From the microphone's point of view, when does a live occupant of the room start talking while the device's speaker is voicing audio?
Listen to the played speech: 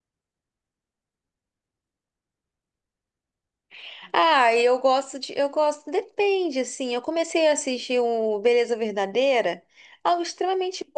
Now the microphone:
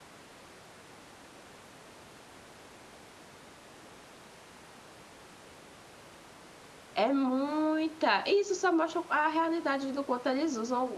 7 s

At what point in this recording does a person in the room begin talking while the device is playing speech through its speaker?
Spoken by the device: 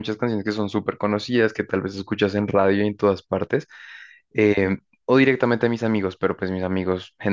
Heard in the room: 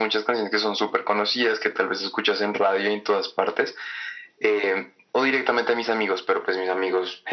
none

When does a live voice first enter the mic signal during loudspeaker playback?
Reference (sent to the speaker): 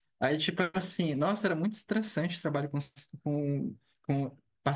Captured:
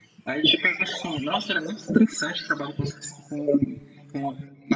none

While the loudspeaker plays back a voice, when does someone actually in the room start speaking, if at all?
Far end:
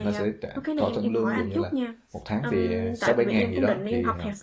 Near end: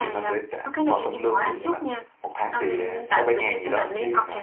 none

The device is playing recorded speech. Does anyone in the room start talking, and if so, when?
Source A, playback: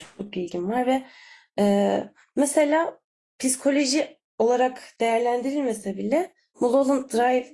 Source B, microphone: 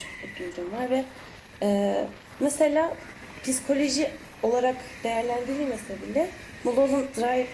none

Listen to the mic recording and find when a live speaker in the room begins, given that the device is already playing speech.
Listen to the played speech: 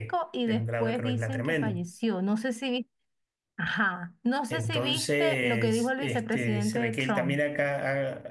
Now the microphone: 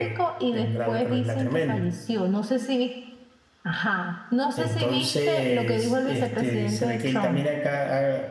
none

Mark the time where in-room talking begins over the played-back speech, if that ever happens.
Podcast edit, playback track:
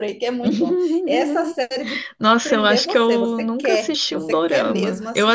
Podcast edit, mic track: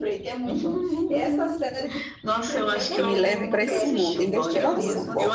3 s

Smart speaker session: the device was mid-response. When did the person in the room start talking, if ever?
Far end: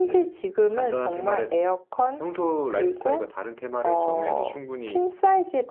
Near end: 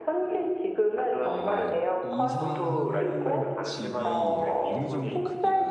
1 s

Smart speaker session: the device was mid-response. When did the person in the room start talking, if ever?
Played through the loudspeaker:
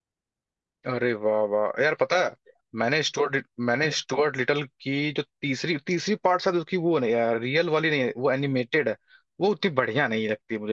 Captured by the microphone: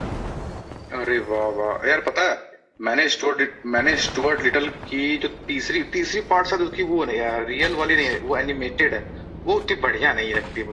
none

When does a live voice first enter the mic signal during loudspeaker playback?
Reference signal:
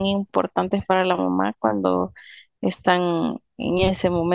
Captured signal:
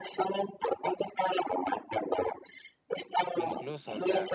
3 s

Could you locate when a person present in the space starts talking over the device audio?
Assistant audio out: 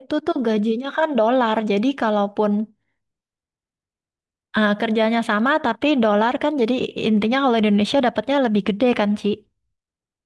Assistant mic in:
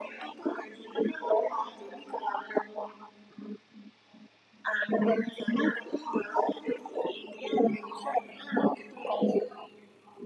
none

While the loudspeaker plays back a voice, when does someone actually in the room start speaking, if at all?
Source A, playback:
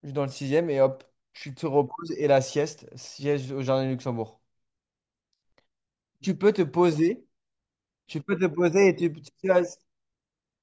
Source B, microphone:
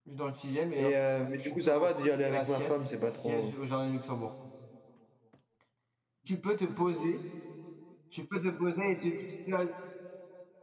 1 s

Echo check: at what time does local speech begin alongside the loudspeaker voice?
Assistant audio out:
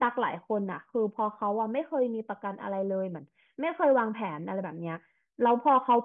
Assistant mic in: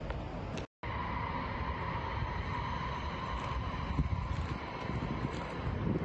none

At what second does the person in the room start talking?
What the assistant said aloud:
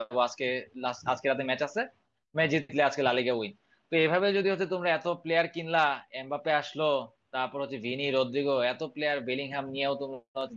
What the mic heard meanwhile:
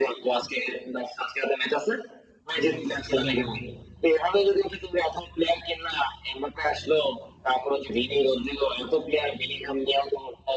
3 s

